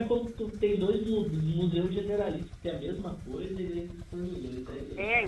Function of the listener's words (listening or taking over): taking over